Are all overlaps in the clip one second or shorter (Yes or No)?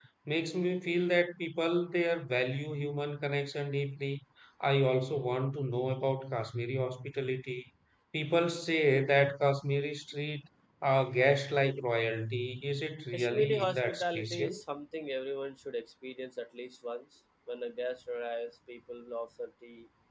No